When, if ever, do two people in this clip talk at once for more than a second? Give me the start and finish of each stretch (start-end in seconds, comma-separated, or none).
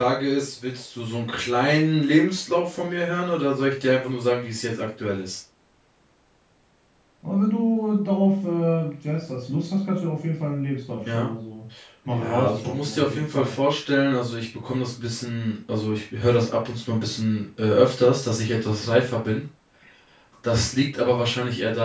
12.1-13.6